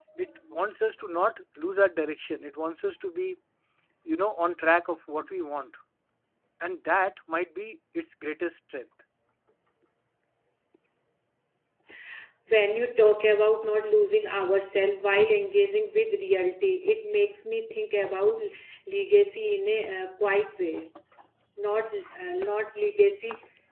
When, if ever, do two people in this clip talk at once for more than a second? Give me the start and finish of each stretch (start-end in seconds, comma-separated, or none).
none